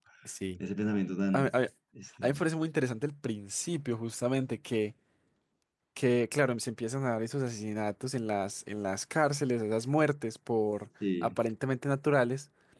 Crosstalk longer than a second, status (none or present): none